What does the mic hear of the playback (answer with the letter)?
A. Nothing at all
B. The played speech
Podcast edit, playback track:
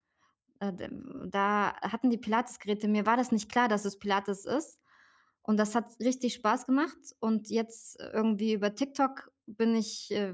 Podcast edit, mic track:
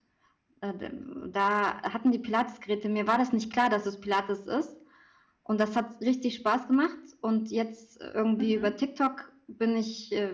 B